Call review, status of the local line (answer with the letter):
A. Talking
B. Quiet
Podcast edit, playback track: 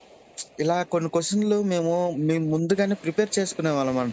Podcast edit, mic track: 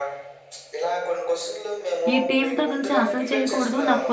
A